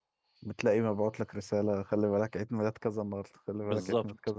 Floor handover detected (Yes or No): Yes